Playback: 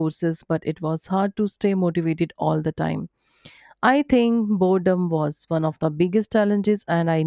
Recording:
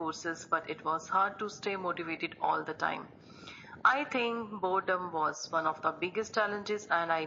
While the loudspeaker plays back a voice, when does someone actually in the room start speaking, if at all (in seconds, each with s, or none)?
none